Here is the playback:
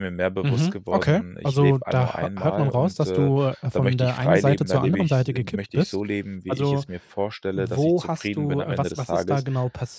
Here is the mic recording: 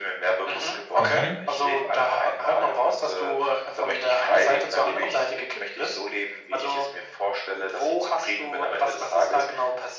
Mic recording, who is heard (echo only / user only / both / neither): both